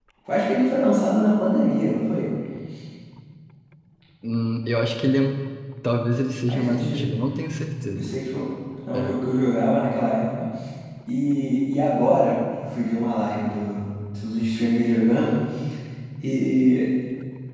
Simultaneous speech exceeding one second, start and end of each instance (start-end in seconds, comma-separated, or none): none